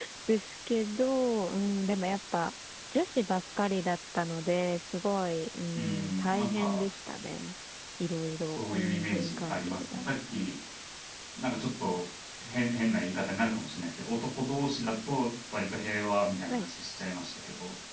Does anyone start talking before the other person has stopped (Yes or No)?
Yes